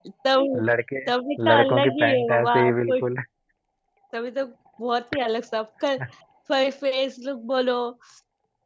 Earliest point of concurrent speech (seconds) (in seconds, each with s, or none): 1.5 s